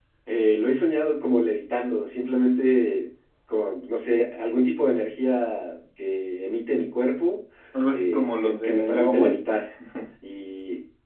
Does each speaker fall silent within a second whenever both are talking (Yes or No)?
No